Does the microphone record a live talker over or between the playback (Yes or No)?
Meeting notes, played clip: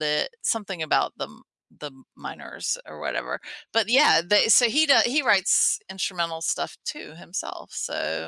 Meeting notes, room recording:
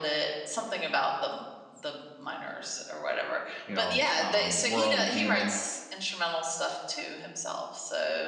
Yes